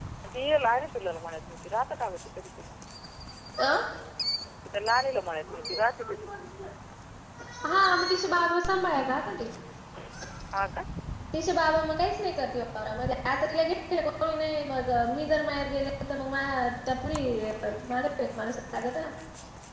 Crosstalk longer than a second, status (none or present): none